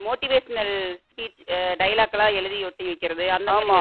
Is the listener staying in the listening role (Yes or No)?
No